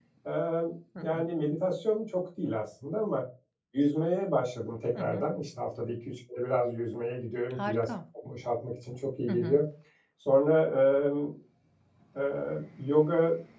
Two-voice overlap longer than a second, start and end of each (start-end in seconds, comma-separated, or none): none